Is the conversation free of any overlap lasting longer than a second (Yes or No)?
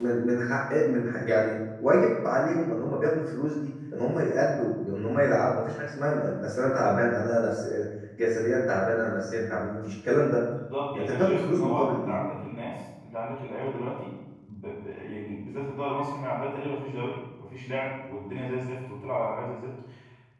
No